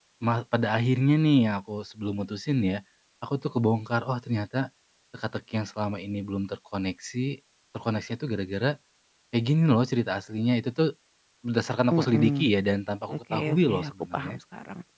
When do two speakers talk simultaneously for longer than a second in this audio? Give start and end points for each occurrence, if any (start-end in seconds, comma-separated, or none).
13.1-14.4